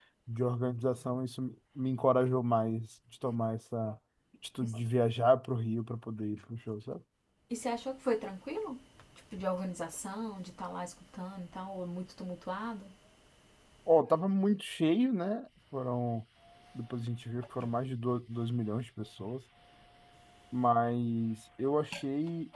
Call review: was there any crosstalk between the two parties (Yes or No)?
No